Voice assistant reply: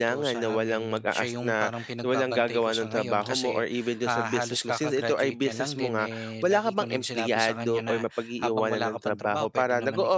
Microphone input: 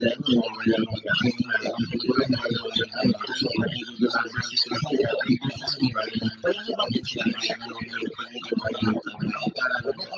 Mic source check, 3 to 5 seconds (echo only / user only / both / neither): echo only